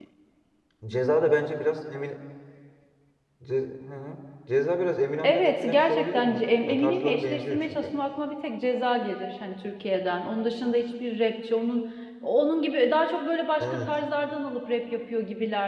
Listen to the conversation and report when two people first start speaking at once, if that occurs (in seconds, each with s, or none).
5.2 s